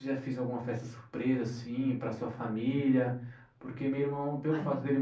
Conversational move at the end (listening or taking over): listening